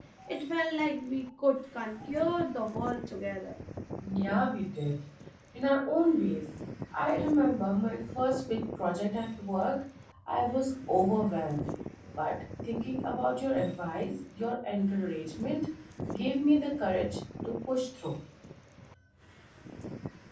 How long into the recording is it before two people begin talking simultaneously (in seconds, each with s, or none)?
none